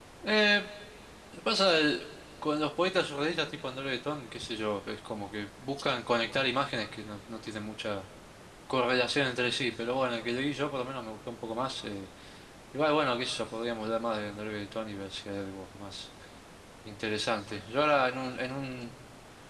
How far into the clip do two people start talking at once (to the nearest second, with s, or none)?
none